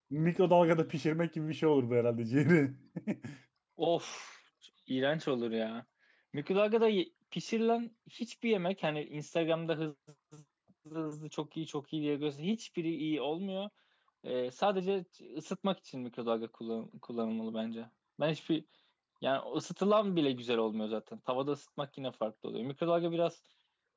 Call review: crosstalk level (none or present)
none